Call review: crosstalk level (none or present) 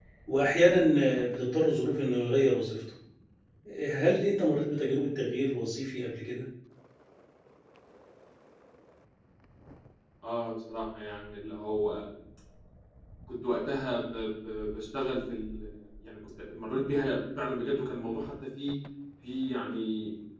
none